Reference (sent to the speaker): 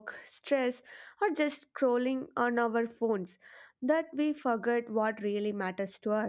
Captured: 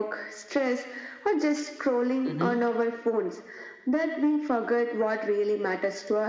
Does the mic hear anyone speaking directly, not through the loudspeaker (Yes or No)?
Yes